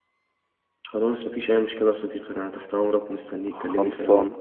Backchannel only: No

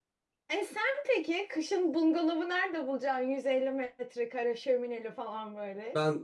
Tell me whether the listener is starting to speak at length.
Yes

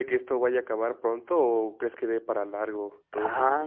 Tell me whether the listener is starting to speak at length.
Yes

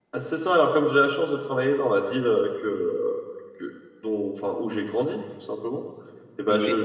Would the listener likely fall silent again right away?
Yes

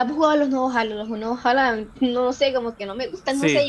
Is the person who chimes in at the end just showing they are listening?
No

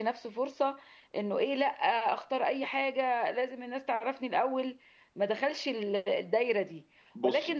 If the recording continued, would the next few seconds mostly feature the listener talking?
No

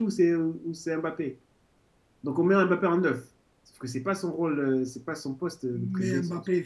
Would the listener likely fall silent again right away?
No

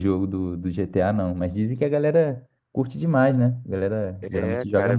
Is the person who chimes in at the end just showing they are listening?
No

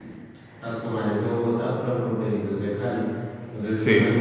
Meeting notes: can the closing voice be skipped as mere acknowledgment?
Yes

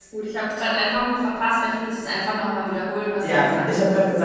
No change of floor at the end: No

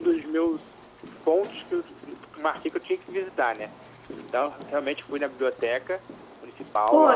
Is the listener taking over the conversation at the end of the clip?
Yes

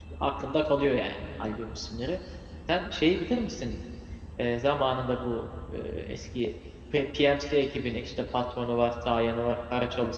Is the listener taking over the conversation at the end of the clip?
Yes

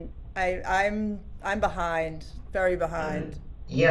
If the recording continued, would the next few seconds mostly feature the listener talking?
Yes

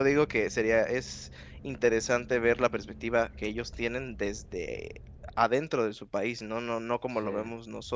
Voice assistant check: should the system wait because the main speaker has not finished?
Yes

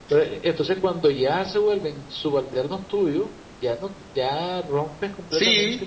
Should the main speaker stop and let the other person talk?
Yes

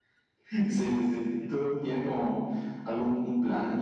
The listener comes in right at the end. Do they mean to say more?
Yes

